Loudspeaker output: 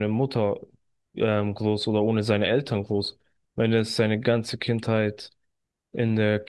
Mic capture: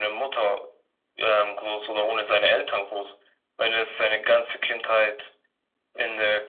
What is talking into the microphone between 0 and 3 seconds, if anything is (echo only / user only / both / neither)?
echo only